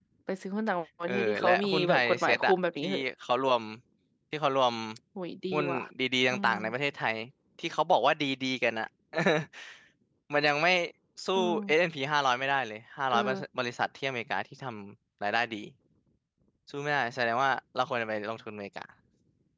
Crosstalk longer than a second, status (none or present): present